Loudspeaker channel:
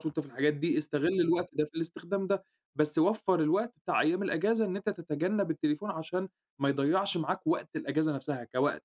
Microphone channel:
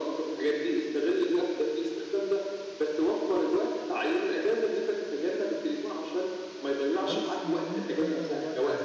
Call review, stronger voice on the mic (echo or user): echo